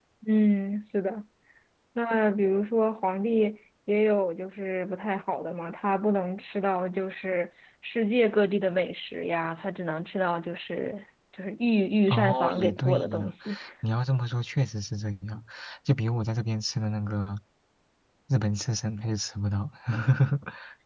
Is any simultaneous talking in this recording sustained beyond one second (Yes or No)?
Yes